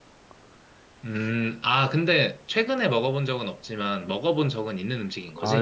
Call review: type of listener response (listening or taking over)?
taking over